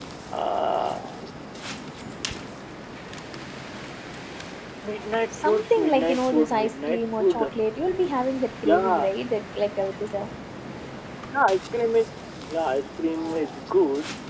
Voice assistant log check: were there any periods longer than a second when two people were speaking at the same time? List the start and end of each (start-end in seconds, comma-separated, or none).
5.4-7.5